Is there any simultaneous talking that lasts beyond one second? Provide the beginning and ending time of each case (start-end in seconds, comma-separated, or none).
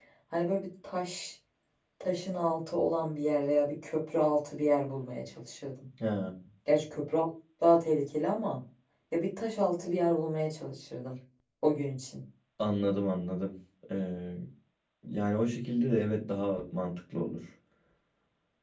none